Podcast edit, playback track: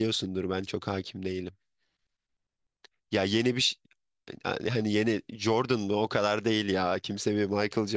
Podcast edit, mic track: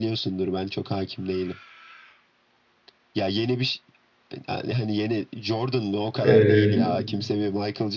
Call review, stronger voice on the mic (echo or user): user